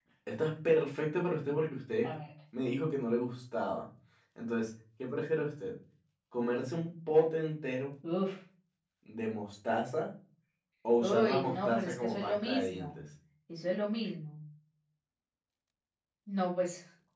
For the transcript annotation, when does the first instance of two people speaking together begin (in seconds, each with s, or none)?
11.0 s